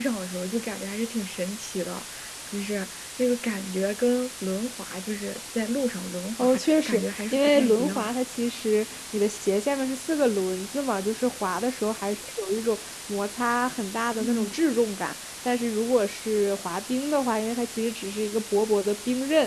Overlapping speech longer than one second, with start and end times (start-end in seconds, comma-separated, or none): 6.4-8.1